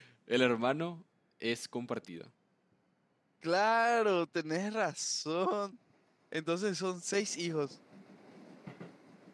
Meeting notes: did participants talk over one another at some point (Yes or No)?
No